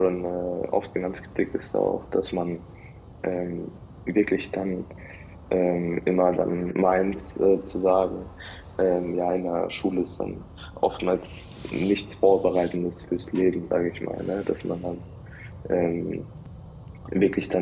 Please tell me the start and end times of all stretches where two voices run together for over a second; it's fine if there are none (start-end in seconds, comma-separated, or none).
none